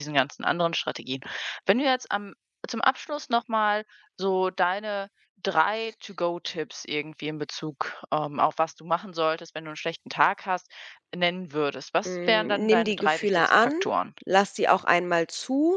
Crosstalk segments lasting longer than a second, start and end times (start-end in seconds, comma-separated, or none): 12.0-13.7